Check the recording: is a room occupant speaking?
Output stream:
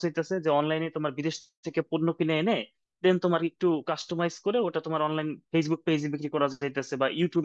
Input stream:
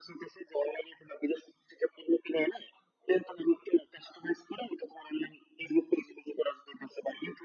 No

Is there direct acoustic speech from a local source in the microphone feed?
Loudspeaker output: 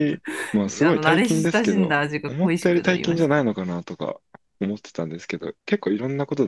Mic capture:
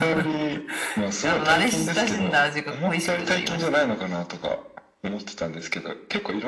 No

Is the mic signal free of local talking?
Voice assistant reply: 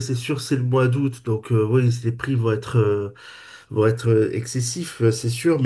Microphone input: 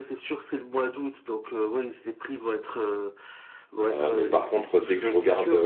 No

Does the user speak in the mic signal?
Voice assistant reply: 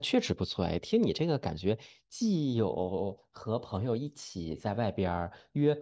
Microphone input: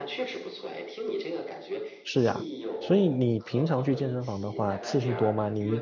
Yes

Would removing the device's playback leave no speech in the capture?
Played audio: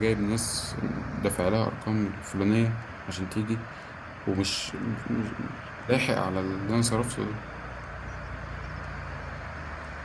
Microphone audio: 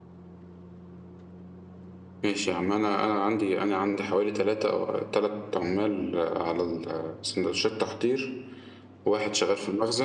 No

